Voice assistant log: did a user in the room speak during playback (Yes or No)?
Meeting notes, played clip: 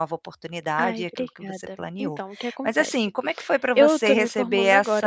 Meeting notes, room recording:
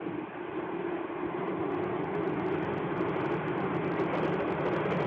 No